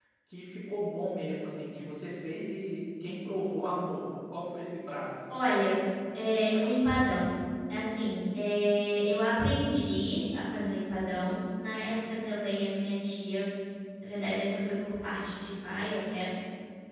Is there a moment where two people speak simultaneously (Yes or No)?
No